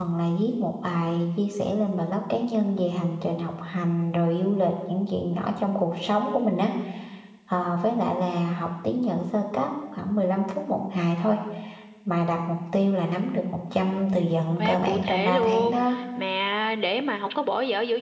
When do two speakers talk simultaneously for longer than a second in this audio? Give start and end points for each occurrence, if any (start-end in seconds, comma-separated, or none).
14.6-15.9